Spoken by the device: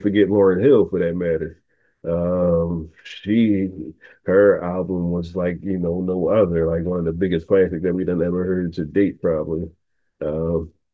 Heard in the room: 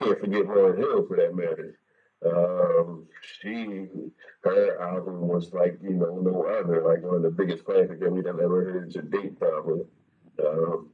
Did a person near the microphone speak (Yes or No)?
No